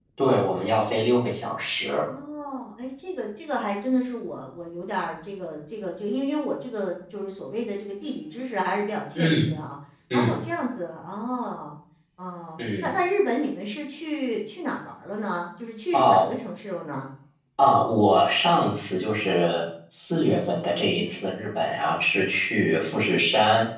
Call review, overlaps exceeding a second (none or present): none